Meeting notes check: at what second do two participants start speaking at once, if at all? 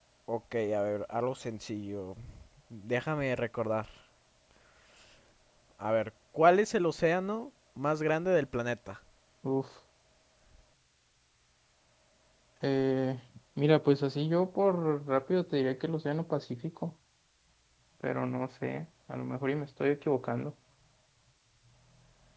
none

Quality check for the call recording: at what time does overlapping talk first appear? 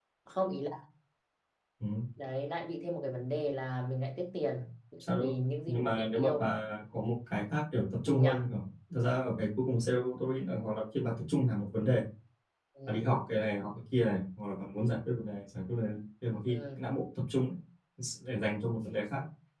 5.2 s

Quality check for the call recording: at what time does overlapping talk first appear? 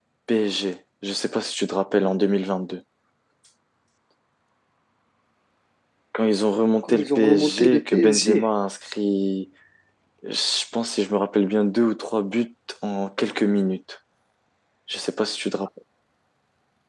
6.8 s

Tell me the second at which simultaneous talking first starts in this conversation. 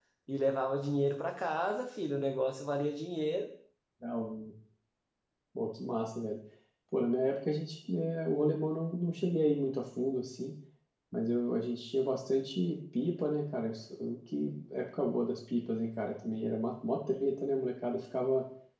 none

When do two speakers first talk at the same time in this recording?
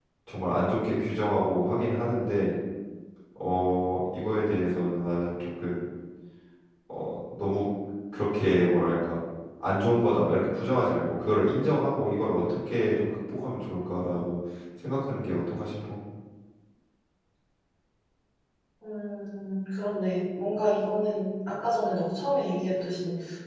none

